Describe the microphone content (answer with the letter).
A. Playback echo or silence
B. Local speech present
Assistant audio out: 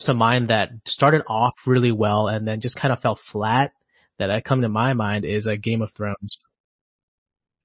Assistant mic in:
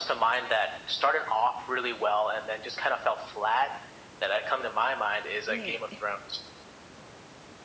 B